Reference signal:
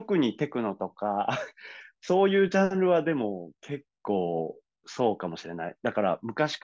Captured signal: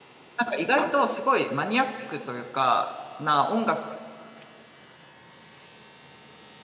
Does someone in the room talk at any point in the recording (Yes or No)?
Yes